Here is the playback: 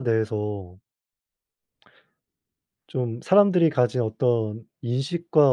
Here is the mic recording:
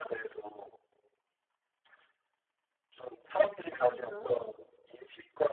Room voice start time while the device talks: 4 s

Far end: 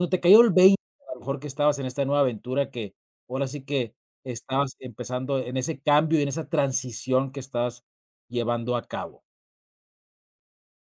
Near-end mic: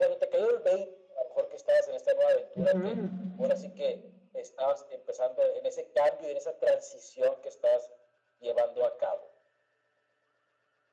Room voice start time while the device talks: 3 s

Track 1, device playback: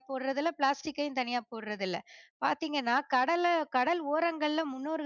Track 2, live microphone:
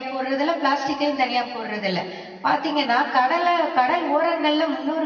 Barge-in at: none

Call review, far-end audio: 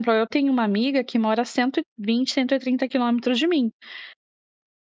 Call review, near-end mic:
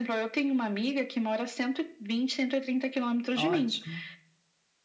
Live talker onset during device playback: 3 s

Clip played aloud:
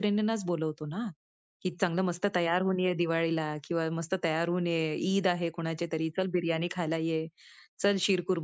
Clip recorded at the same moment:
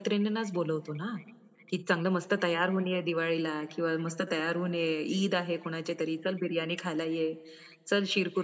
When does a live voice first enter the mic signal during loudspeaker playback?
none

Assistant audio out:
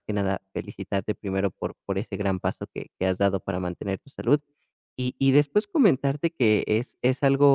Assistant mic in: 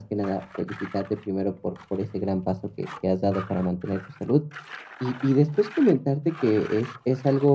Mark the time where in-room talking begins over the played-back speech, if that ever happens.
none

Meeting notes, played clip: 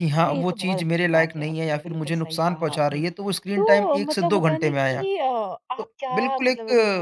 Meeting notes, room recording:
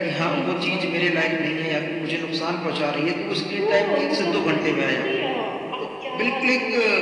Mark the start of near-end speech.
none

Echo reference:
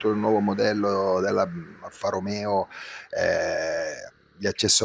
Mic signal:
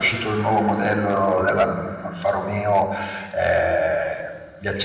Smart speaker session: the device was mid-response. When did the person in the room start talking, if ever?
none

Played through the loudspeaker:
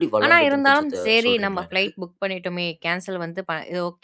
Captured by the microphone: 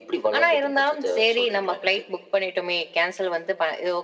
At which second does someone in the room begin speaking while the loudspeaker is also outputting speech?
none

